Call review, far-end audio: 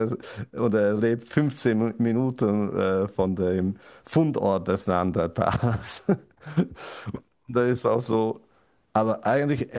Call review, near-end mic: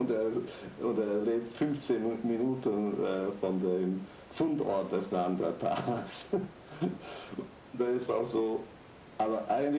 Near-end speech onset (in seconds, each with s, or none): none